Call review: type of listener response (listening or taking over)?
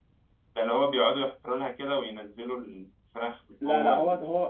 taking over